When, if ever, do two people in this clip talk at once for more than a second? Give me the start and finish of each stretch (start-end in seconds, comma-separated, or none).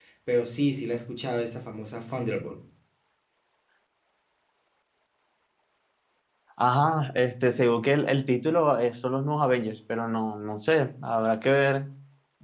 none